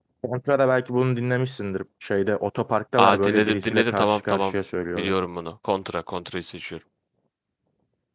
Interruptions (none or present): present